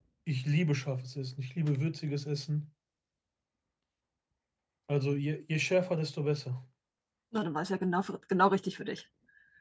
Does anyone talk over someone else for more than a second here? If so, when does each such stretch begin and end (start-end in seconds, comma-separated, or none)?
none